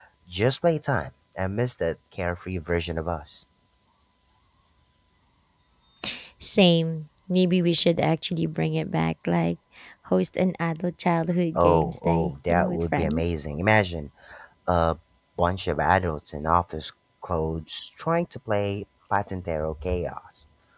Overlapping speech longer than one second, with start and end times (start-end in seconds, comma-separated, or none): 11.6-13.4